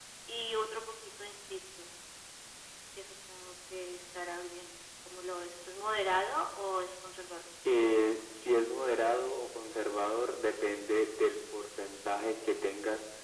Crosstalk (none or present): none